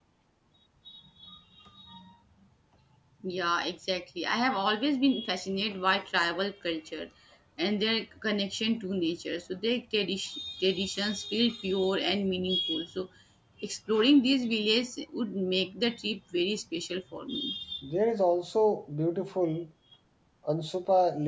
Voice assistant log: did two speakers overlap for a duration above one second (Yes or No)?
No